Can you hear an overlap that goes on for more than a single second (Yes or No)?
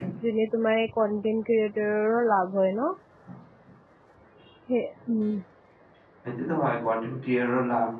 No